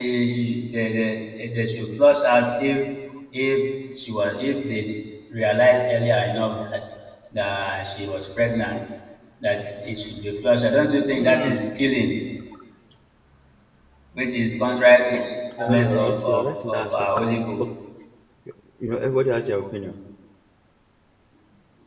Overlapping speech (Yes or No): Yes